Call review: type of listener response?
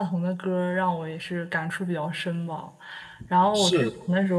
listening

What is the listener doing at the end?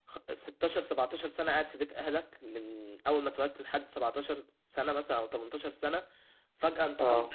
listening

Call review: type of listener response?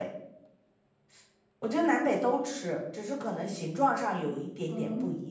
taking over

